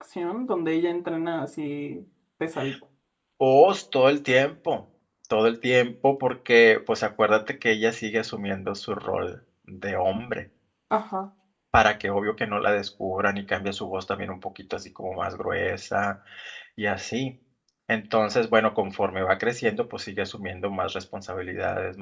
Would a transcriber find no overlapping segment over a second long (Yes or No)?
Yes